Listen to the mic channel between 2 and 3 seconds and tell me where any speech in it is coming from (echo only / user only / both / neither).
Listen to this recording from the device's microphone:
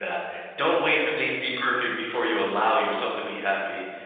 user only